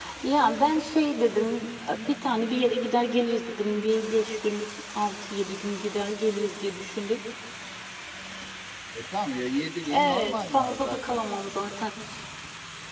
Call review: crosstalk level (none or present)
present